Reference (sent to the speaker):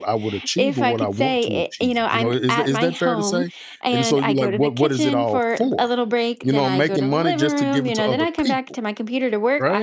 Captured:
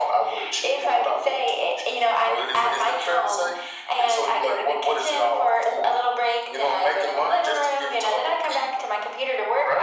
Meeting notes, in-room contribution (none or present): none